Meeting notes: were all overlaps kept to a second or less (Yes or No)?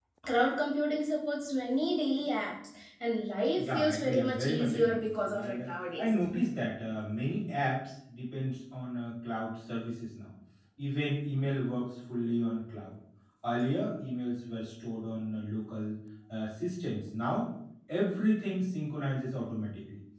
No